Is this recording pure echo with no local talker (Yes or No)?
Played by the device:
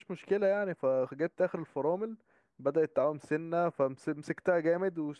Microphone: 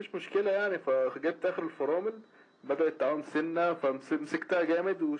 Yes